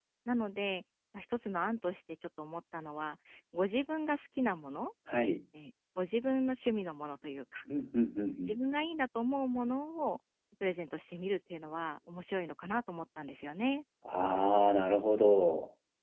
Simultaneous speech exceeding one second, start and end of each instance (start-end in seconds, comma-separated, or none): none